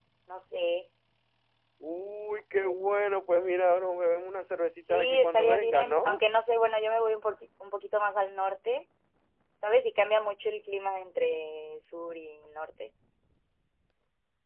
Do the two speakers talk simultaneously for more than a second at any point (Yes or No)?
Yes